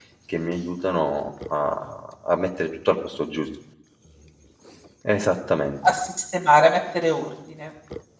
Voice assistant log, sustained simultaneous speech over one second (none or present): none